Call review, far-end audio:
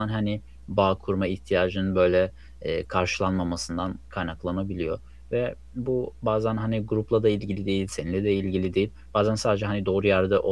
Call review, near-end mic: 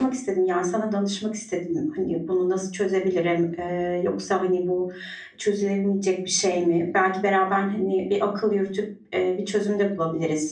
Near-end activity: present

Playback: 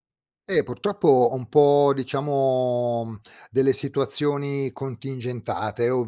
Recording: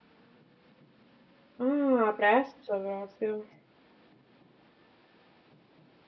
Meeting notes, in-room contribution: present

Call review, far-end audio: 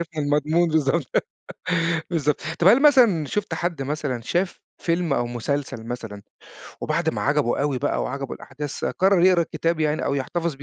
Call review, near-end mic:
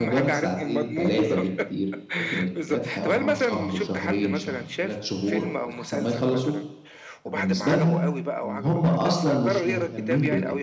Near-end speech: present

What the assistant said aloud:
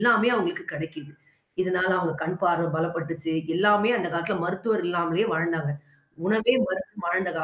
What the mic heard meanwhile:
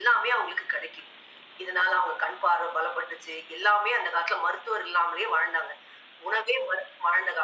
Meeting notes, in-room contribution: none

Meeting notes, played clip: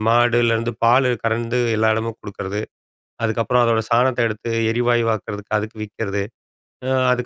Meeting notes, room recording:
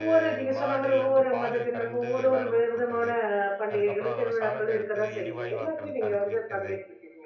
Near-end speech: present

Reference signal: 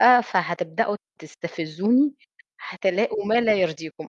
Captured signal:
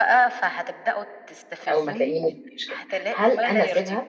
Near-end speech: present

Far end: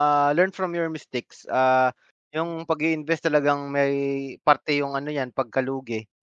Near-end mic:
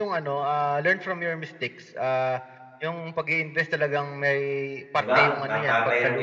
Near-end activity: present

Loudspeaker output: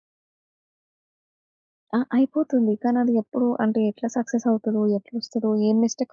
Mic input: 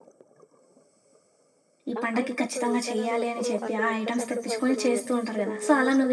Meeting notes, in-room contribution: present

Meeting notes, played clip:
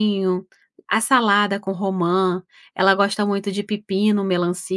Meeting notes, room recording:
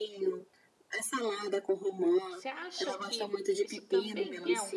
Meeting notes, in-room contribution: present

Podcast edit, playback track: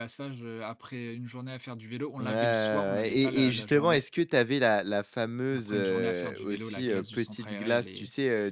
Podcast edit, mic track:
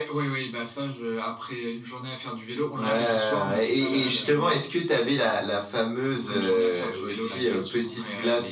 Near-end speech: present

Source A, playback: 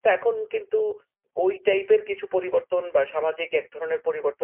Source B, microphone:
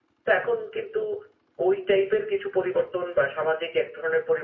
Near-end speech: none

